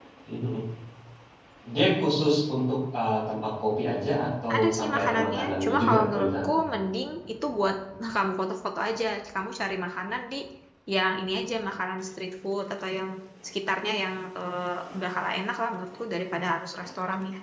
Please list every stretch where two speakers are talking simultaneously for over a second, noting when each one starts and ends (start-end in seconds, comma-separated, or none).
4.5-6.5